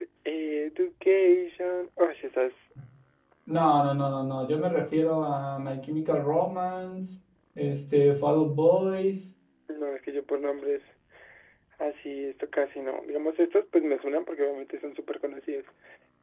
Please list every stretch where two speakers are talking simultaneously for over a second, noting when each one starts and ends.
none

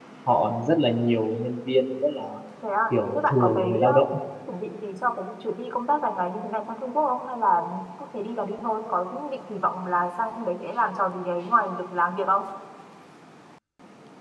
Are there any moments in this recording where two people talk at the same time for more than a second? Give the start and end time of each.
2.9-4.1

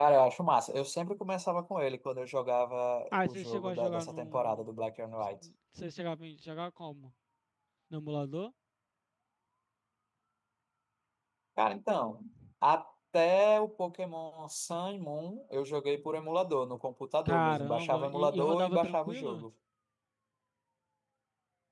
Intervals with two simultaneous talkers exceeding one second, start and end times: 3.1-4.6, 17.2-19.4

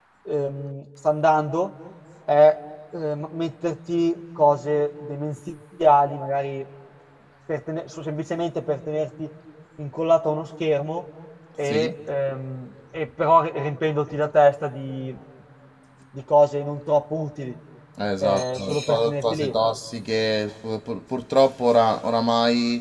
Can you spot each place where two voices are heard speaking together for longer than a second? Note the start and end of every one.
18.2-19.6

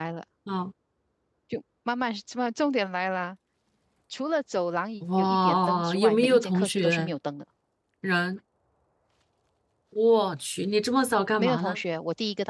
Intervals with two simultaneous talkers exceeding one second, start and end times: 5.2-7.1

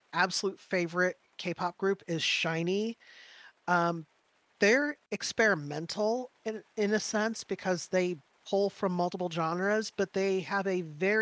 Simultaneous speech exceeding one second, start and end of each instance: none

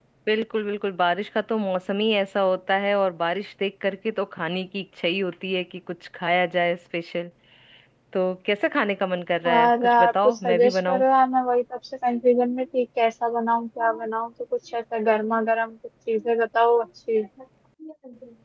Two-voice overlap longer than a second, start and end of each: 9.5-11.0

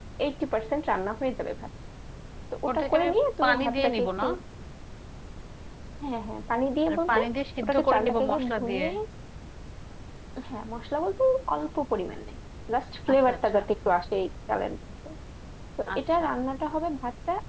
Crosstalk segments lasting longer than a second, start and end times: 2.7-4.2, 7.6-8.8

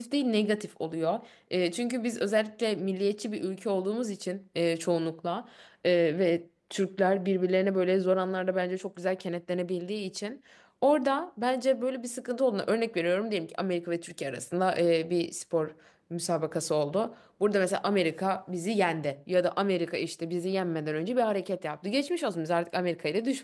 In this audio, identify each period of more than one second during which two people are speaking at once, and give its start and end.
none

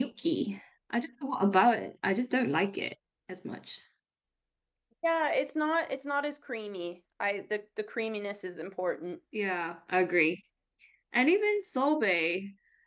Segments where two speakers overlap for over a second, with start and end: none

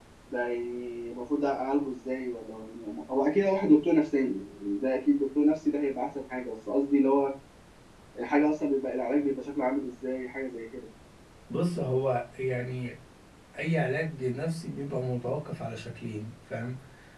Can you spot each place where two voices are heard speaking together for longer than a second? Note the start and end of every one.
none

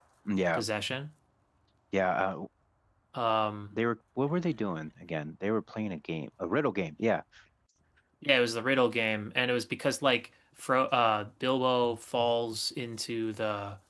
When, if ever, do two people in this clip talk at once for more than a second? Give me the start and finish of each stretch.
none

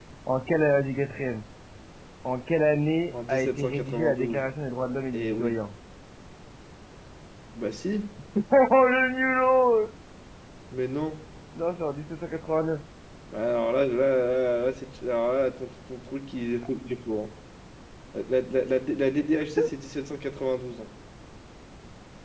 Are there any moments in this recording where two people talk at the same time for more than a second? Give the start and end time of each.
3.1-4.5

